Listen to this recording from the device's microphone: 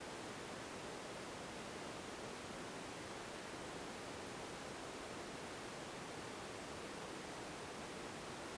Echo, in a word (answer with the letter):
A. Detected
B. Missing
B